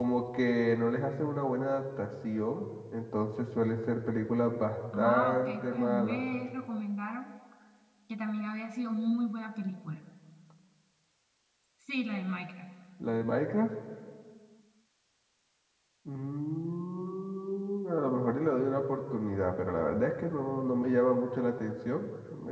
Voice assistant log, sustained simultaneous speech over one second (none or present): present